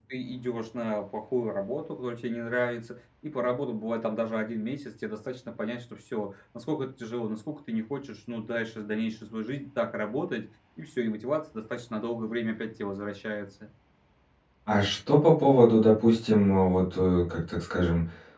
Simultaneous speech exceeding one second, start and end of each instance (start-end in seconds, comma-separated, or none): none